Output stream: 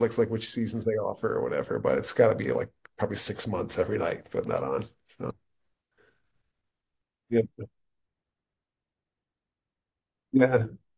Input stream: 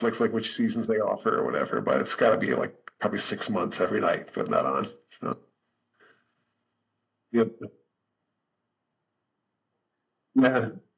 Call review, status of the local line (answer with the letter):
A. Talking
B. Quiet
B